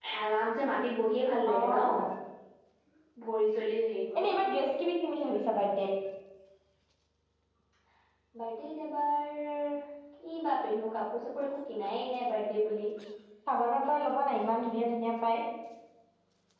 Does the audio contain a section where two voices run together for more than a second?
No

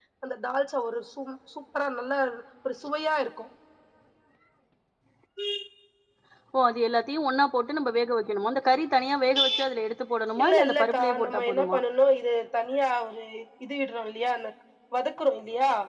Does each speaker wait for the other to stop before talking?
No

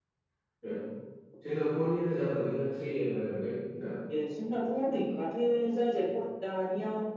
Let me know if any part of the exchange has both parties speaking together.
No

